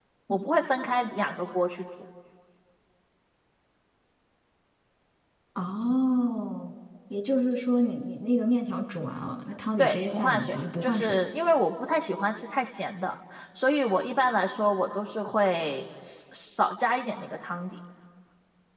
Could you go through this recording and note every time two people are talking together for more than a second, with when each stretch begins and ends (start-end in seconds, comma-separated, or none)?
9.8-11.2